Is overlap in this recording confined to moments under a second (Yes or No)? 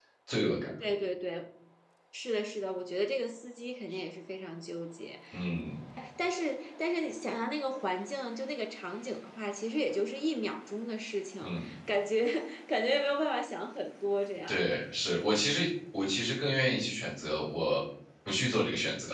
Yes